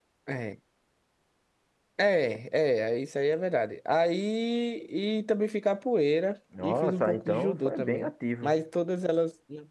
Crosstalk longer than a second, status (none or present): present